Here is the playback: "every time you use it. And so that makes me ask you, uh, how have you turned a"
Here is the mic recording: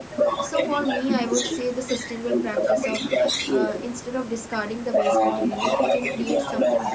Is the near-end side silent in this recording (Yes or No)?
No